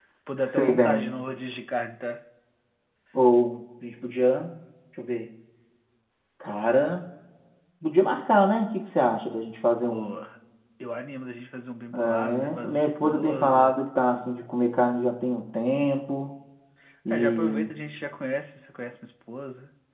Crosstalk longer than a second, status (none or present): present